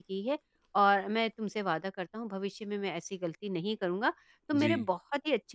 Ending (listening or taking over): listening